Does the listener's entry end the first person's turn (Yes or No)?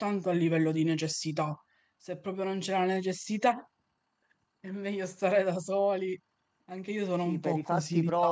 Yes